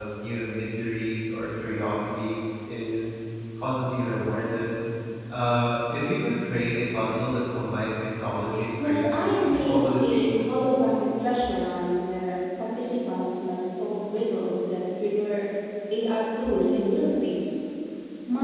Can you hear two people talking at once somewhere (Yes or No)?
Yes